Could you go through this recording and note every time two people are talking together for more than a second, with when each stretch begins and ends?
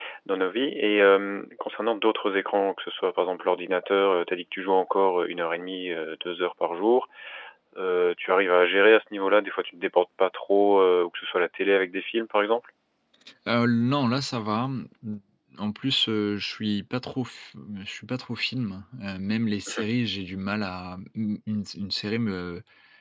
none

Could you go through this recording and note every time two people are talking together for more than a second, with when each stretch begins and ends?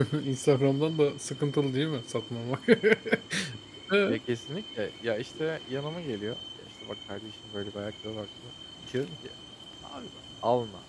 none

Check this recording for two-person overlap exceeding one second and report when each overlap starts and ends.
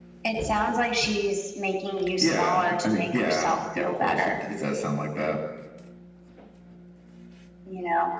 2.2-4.3

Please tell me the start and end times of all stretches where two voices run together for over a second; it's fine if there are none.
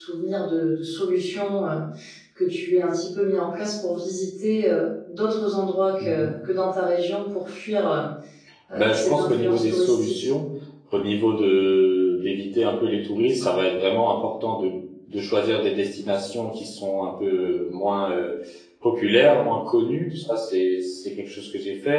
8.7-10.3

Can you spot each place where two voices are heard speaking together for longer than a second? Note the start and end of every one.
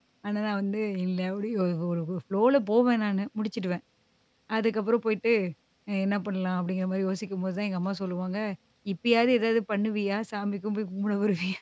none

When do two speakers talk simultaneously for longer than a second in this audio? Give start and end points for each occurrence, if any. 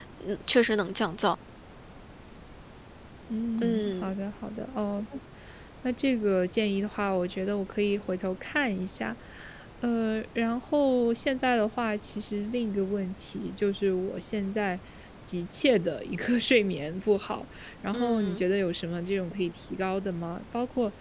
none

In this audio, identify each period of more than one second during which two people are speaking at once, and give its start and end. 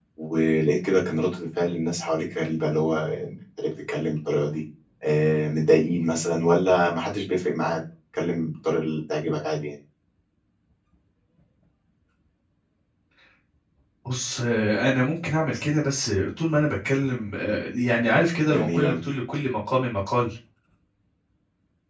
none

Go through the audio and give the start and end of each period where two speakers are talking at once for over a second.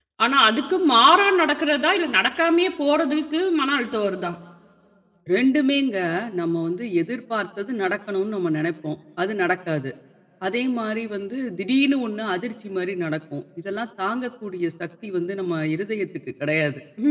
none

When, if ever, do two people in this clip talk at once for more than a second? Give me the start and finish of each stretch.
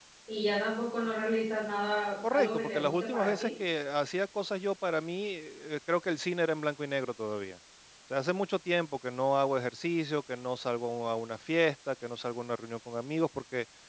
2.3-3.5

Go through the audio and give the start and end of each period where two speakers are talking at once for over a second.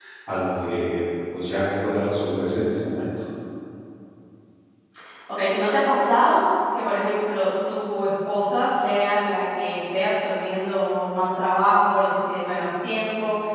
none

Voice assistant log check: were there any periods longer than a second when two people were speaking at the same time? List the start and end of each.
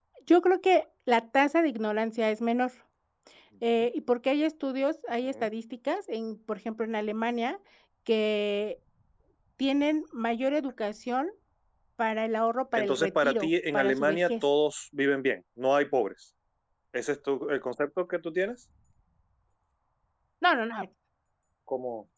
12.7-14.4

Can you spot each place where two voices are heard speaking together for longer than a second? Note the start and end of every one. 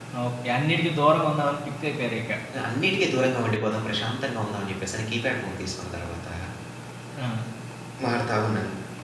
none

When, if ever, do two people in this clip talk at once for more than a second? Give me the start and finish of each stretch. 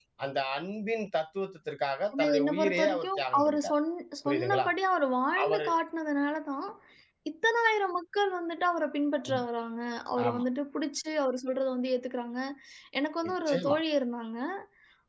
2.1-3.7

